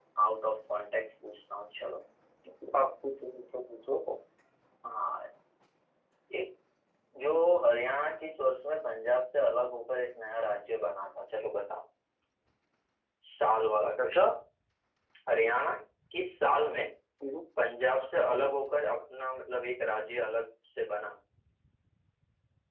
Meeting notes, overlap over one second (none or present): none